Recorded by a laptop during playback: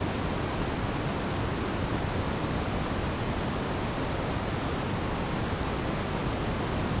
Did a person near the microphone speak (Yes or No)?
No